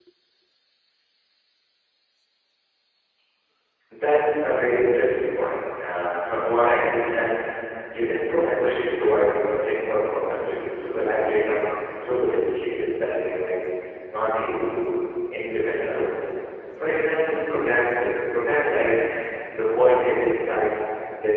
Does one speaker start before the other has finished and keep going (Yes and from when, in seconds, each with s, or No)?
No